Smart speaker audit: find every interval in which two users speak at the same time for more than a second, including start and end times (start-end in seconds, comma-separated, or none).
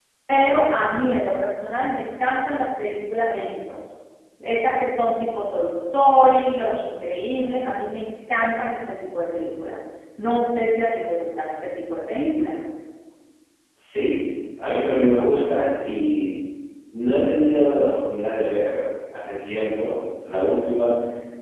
none